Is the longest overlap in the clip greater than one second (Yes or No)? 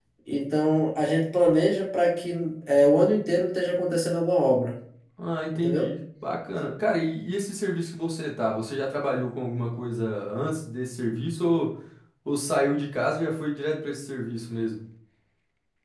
No